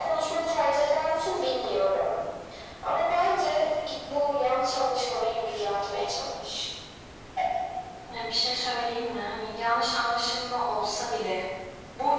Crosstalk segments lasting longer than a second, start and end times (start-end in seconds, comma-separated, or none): none